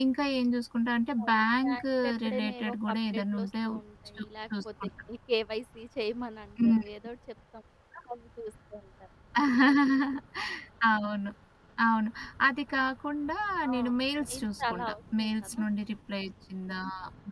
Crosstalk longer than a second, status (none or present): present